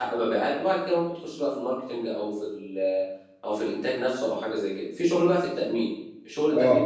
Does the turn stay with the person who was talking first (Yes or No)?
Yes